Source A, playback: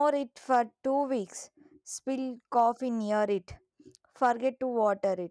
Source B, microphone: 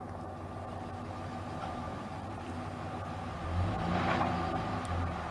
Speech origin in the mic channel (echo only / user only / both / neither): neither